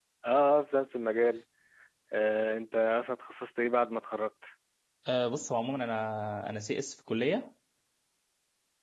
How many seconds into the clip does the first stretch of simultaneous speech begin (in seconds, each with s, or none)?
none